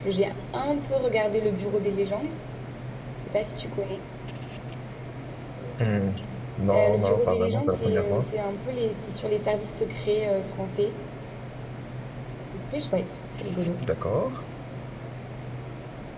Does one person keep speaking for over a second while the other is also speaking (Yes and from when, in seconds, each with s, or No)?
Yes, from 6.7 s